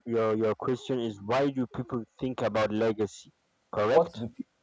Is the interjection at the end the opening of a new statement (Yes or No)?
Yes